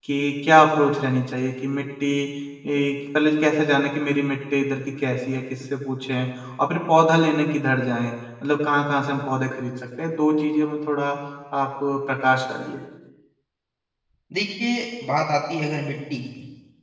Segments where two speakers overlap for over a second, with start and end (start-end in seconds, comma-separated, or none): none